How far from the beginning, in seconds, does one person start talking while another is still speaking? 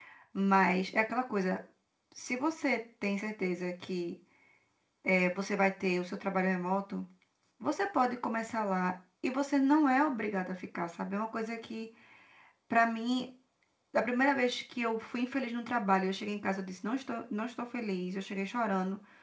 none

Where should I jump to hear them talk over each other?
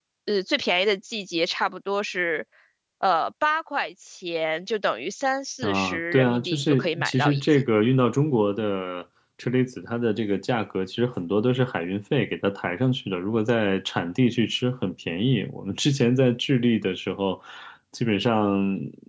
6 s

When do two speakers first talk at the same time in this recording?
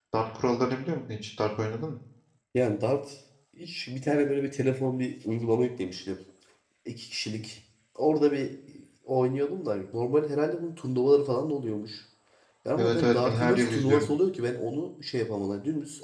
13 s

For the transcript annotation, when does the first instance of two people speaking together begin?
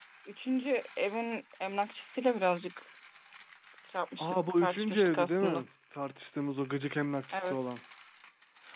4 s

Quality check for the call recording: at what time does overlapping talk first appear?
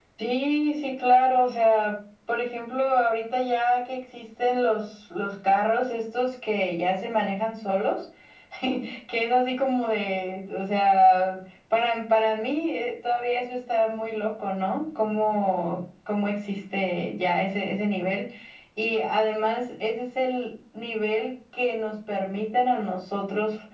none

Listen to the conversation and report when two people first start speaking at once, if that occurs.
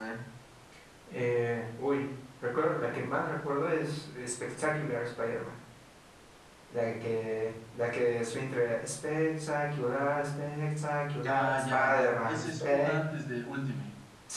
11 s

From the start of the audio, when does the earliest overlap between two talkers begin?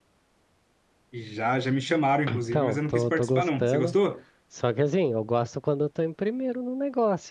2 s

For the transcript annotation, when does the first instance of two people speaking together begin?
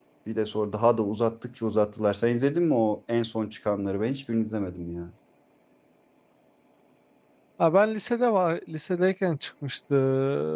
none

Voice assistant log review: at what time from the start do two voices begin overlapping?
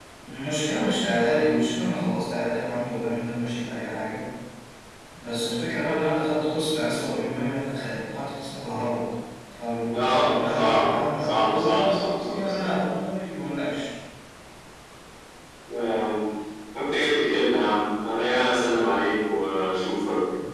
10 s

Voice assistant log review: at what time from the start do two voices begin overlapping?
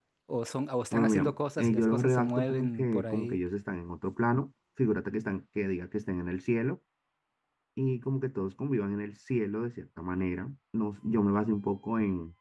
1 s

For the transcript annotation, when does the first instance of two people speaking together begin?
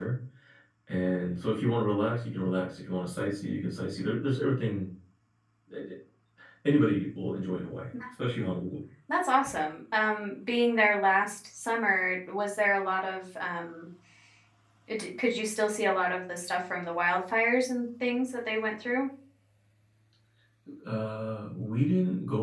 none

